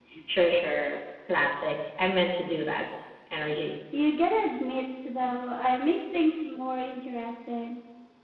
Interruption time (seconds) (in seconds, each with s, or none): none